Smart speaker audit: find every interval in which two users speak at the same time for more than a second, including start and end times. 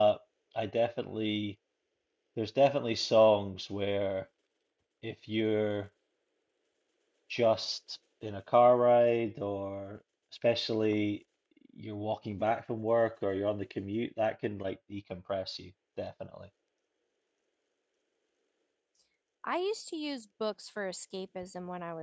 none

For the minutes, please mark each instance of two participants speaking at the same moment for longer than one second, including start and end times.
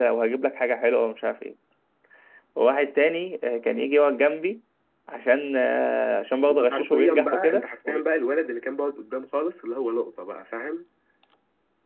6.5-8.0

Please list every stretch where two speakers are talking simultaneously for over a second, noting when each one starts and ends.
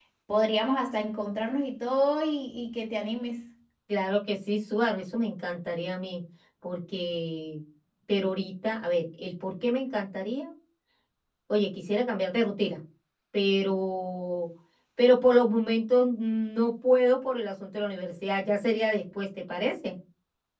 none

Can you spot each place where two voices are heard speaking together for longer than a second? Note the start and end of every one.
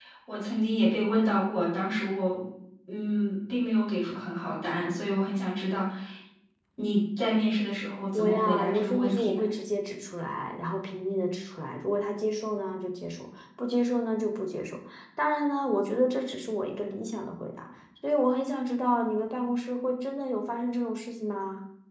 8.1-9.4

